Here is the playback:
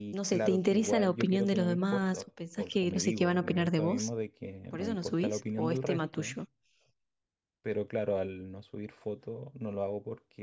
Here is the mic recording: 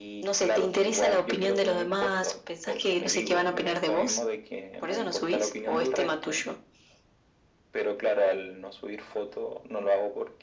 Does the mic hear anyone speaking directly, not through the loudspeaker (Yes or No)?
No